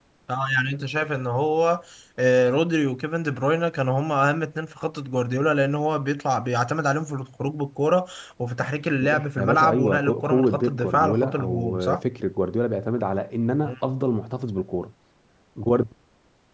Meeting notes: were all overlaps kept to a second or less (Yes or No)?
No